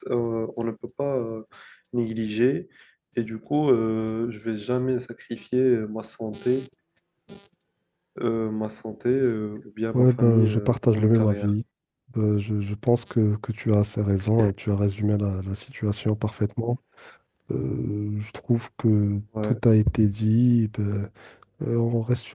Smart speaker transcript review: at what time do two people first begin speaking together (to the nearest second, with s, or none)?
10 s